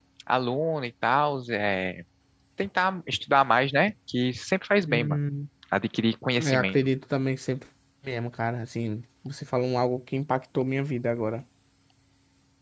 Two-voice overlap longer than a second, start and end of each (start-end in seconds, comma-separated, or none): none